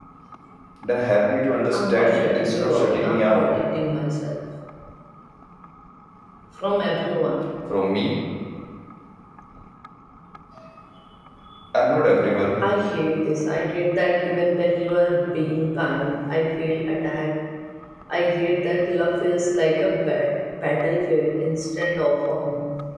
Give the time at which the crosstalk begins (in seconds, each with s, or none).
1.7 s